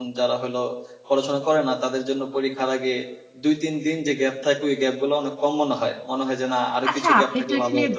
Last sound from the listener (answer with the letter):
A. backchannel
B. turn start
B